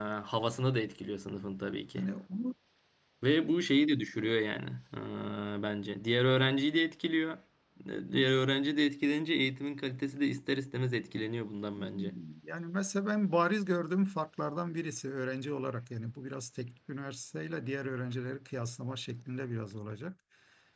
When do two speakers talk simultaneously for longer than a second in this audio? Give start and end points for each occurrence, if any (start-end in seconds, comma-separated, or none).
none